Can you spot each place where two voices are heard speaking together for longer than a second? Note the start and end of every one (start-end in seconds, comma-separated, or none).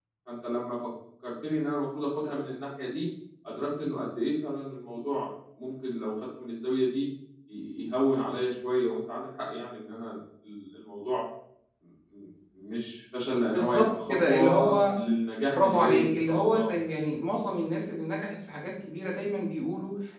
13.5-15.0, 15.5-16.7